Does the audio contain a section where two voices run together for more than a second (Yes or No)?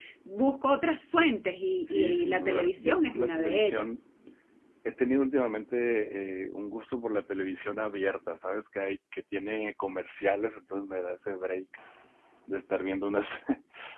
Yes